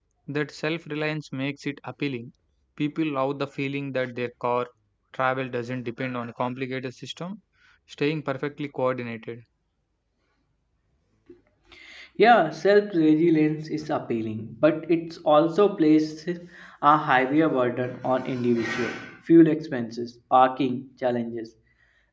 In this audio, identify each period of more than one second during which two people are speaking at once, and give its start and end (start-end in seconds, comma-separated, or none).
none